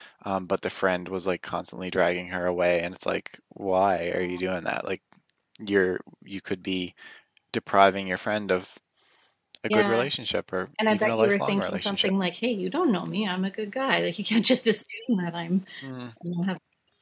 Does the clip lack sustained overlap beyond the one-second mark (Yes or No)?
No